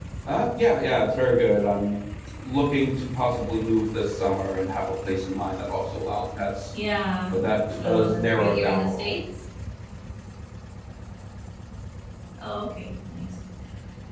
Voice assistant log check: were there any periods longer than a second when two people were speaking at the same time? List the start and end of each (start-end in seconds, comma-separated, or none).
7.8-9.1